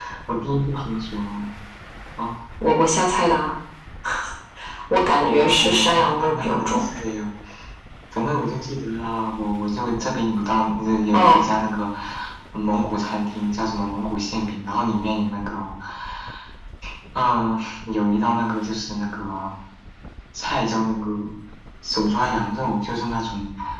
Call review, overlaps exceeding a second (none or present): present